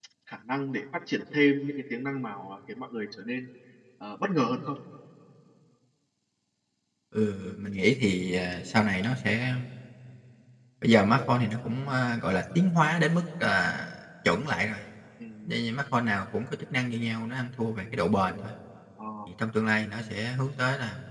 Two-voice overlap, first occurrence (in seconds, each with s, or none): none